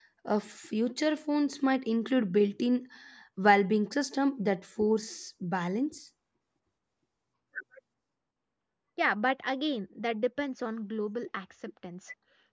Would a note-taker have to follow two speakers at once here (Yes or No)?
No